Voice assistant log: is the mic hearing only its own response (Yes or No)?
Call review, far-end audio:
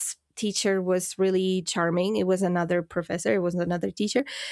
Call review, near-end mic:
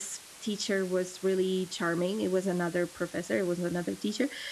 Yes